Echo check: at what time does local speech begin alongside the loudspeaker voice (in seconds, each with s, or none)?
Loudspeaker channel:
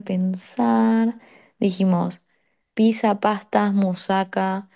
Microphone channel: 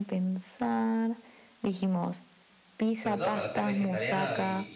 3.0 s